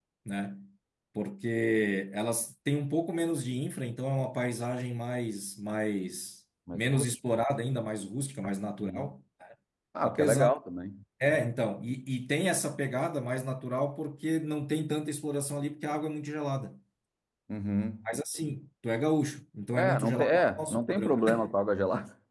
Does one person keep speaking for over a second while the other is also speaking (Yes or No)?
Yes